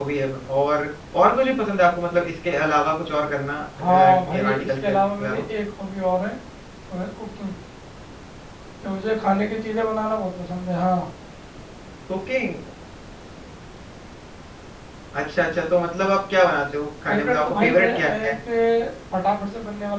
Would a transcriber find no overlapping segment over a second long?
No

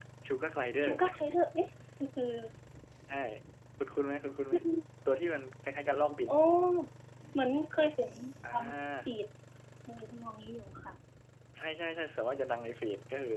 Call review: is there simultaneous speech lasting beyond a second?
No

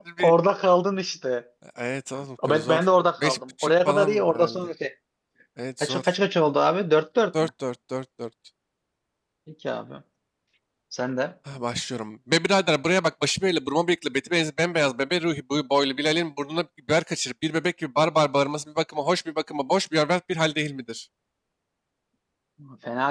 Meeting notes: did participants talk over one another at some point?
Yes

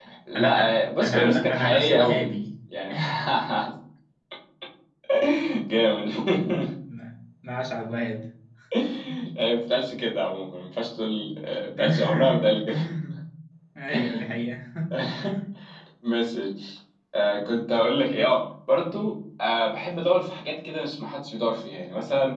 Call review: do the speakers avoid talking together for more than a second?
No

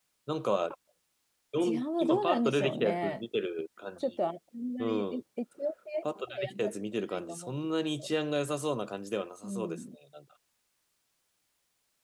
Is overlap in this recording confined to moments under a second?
No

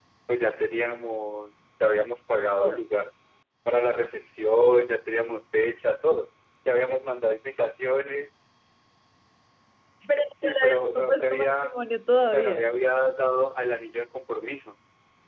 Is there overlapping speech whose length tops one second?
Yes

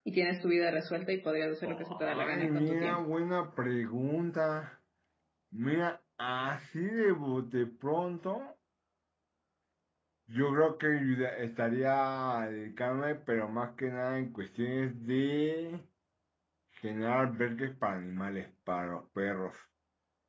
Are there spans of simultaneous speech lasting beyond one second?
Yes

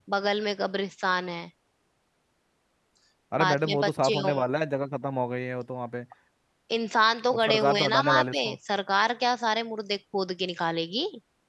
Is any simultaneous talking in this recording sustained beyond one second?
Yes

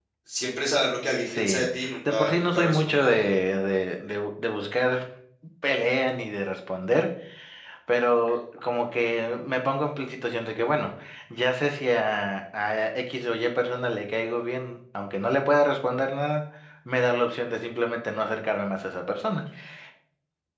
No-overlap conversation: No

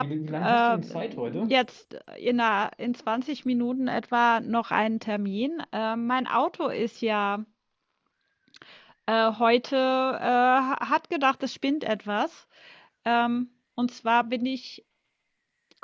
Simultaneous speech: Yes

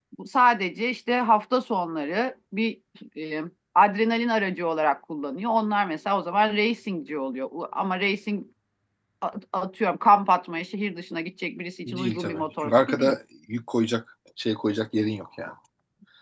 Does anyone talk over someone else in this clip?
Yes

